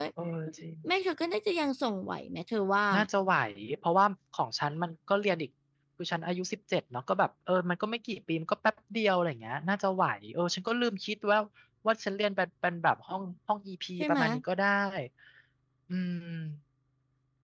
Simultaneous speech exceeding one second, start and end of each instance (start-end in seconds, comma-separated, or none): none